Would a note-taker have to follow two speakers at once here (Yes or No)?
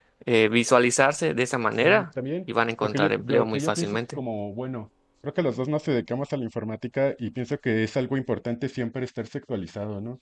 Yes